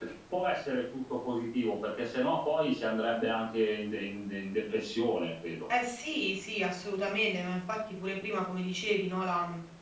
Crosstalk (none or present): none